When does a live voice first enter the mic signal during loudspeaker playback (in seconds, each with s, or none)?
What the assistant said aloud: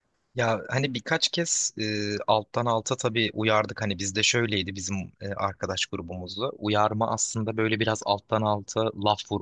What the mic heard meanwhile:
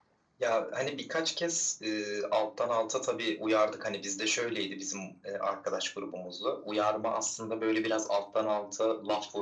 none